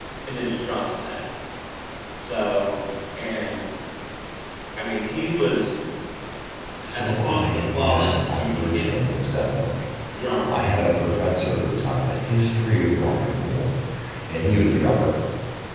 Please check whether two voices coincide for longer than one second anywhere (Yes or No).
Yes